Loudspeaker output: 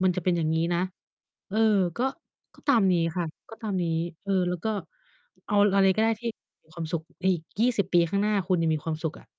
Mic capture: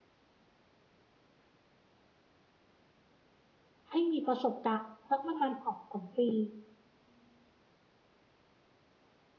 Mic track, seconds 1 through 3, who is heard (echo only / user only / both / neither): neither